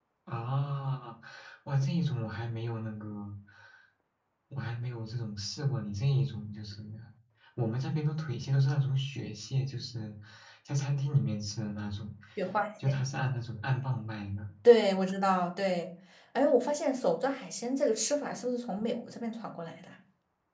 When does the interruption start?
none

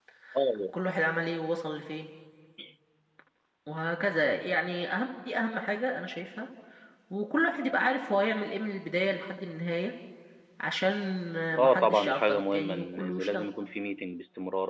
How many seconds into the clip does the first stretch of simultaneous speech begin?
11.6 s

